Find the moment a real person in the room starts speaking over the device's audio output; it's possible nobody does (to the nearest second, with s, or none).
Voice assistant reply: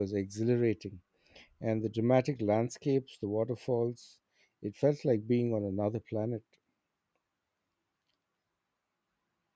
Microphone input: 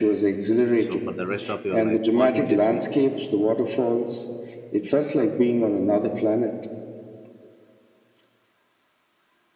1 s